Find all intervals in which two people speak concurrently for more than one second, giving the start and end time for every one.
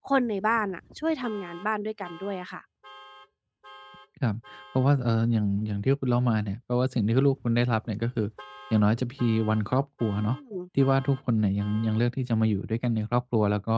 none

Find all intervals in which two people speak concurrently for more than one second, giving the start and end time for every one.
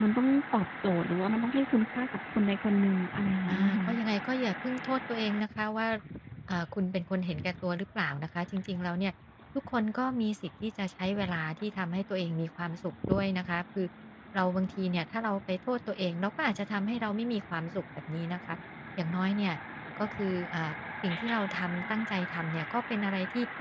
none

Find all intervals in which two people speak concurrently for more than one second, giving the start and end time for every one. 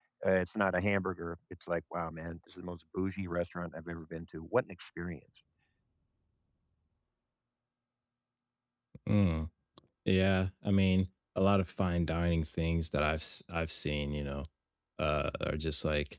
none

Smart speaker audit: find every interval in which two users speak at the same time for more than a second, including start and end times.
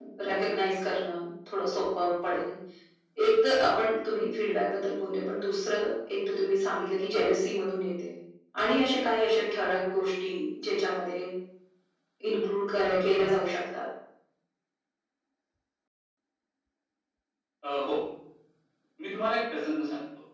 none

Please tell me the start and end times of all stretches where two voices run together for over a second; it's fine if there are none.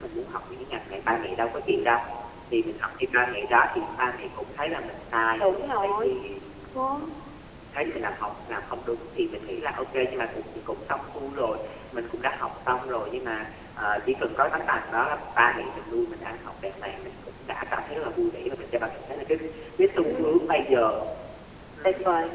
none

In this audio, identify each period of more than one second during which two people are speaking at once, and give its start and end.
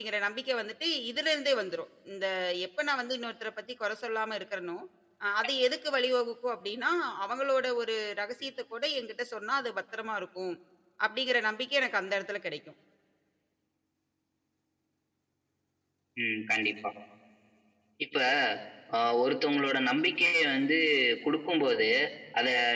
none

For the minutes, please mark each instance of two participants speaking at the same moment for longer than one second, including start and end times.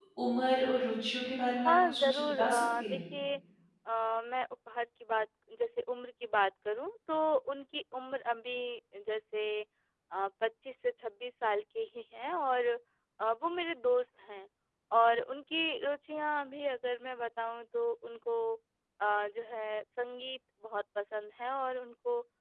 1.6-3.0

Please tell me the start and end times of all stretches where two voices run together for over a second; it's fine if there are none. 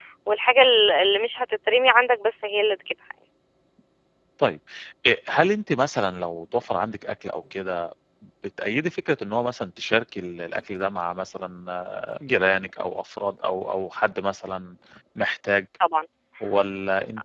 none

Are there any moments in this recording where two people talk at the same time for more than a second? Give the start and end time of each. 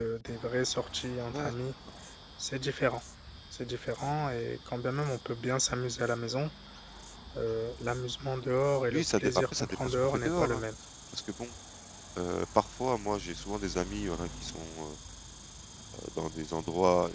8.9-10.6

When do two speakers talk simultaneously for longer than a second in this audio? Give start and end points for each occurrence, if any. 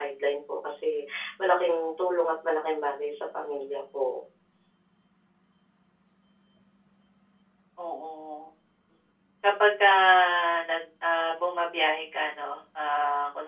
none

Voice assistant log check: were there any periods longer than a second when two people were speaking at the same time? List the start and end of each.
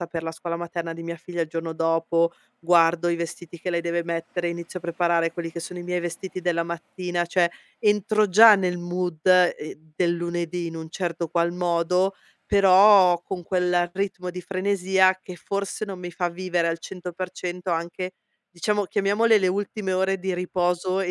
none

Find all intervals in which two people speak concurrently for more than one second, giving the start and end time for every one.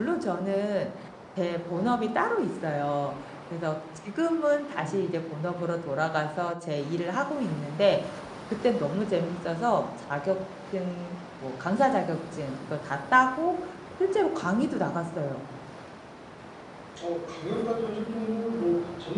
none

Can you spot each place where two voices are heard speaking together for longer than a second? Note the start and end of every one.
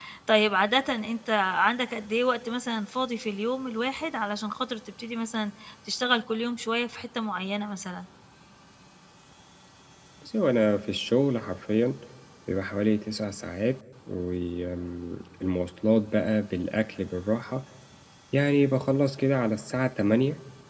none

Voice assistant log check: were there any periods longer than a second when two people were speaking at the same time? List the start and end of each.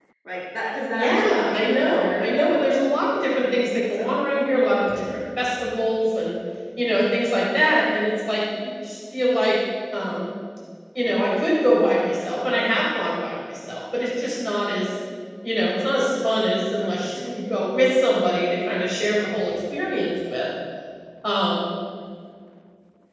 0.9-2.7

